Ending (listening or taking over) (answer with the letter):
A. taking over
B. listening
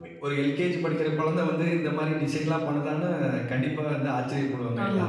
A